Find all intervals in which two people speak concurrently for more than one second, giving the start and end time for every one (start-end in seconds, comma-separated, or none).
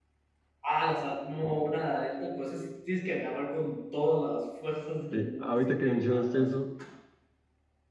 5.1-6.5